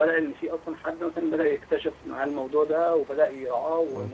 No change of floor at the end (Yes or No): Yes